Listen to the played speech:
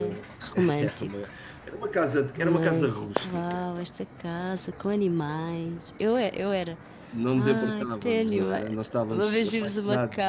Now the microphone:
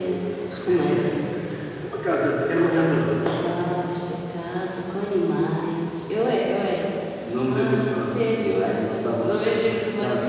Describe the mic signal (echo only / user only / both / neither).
echo only